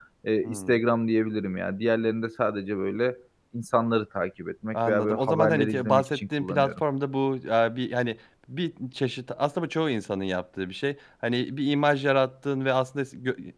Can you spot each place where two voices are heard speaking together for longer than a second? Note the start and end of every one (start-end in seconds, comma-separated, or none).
4.7-6.7